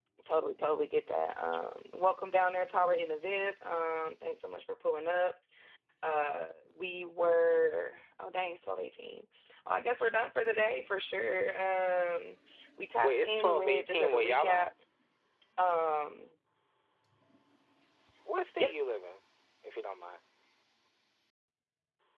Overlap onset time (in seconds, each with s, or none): 13.0 s